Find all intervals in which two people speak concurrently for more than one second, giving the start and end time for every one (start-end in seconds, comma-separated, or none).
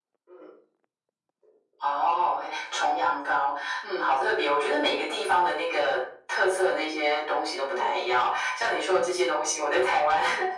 none